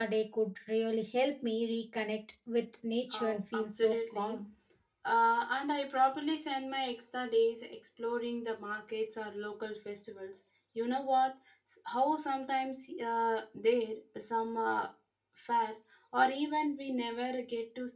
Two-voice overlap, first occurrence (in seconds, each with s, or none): 3.1 s